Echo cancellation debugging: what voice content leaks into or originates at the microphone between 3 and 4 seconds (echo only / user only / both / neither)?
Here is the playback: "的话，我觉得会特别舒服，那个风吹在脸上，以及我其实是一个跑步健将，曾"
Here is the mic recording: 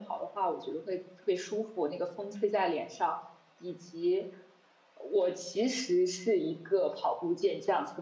echo only